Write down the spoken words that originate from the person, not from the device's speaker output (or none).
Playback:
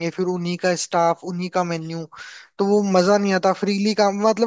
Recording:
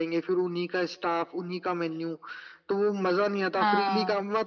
हाँ